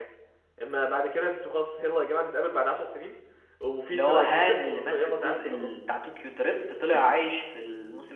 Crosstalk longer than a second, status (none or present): present